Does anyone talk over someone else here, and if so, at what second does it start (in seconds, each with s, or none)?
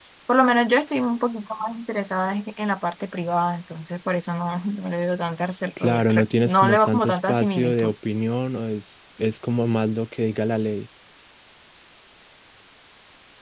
5.8 s